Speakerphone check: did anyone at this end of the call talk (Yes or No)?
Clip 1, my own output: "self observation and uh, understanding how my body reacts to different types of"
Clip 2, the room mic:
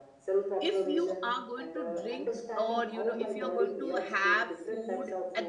Yes